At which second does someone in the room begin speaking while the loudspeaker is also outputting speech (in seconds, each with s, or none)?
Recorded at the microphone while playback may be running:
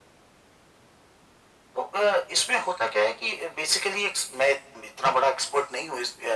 none